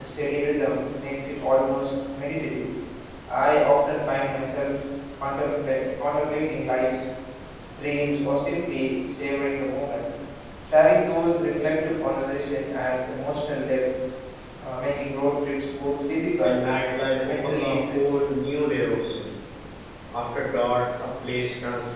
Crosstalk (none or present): present